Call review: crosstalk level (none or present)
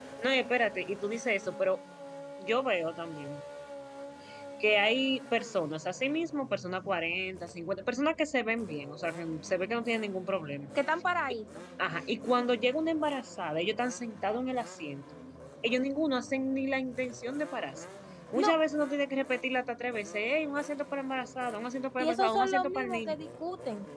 present